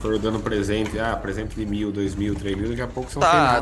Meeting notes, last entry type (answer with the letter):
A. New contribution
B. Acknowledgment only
A